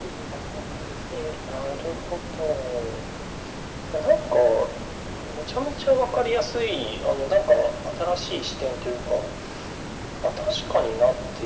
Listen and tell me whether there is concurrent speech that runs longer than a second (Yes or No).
No